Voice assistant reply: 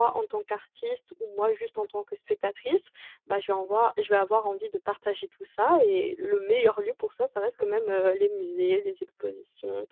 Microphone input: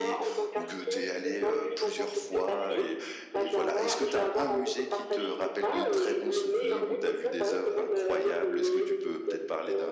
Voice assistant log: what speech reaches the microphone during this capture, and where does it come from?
both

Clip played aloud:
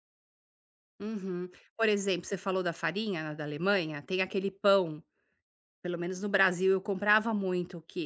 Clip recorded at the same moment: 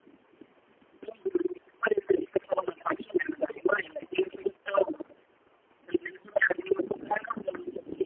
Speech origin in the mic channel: echo only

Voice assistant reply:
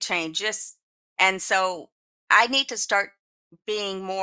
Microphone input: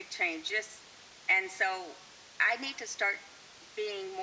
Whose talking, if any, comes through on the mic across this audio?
echo only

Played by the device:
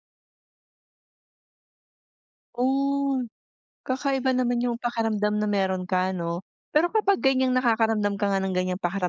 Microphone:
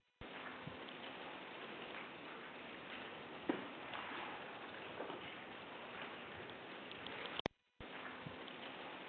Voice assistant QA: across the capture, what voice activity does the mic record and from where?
neither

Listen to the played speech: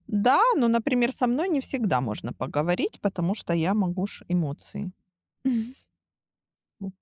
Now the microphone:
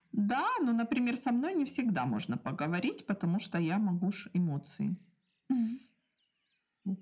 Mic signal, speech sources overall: echo only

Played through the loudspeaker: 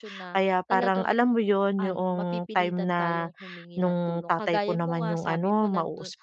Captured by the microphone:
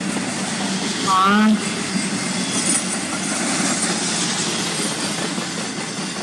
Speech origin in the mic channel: user only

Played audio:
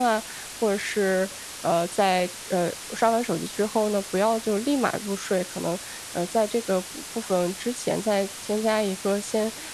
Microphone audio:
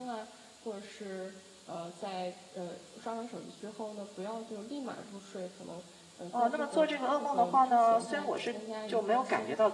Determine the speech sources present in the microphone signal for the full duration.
both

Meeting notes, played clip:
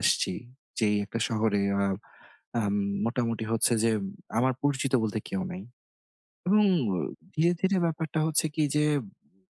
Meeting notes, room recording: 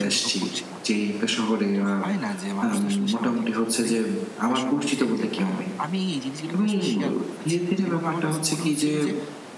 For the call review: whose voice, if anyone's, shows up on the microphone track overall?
both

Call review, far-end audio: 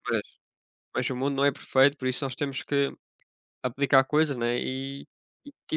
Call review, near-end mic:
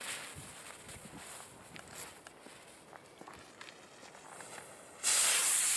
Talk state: neither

